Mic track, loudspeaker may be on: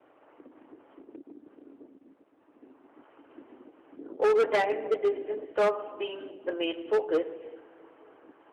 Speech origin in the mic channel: user only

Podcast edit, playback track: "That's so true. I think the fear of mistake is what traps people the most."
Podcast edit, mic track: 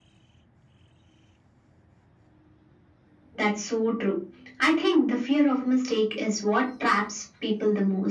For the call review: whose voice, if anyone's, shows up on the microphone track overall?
echo only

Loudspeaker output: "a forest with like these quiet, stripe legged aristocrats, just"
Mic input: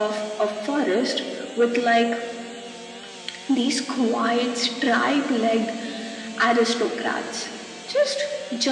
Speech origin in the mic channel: echo only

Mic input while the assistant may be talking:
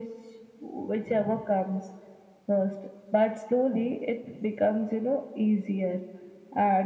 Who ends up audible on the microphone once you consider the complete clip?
echo only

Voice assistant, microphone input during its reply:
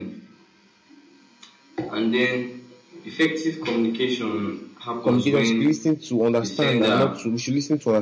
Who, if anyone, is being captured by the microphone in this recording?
both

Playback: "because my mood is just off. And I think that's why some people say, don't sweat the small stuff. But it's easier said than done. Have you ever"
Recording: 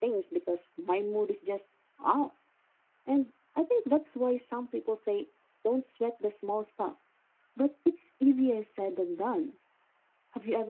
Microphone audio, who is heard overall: echo only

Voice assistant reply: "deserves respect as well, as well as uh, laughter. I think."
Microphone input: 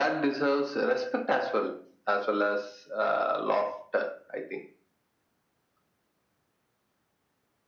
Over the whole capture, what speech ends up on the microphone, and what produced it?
echo only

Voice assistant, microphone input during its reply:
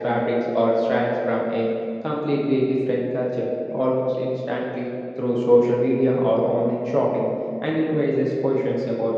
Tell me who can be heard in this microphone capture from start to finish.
echo only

